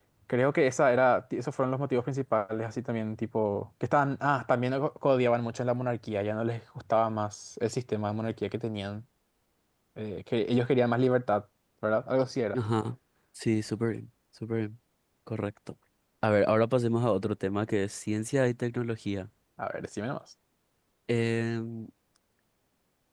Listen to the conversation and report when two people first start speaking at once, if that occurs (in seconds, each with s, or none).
none